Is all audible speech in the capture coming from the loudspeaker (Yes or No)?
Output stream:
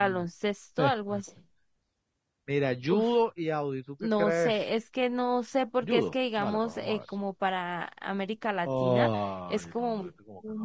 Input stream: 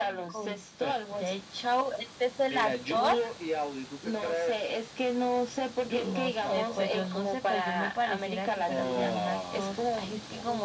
No